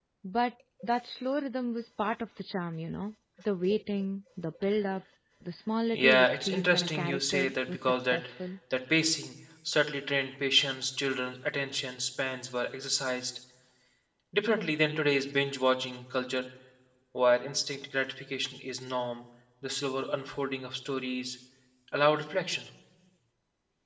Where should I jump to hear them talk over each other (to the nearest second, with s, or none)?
6 s